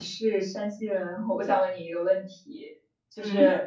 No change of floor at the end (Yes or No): Yes